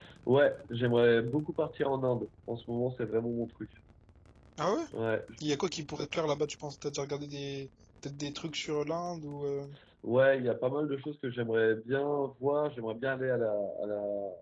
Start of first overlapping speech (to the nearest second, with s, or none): none